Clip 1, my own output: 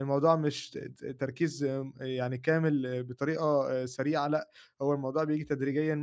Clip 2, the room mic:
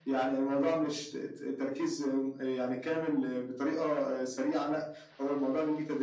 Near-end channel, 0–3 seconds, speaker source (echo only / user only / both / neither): echo only